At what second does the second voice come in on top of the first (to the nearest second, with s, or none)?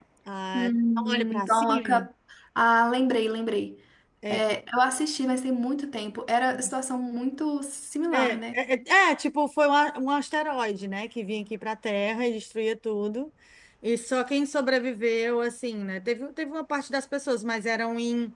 1 s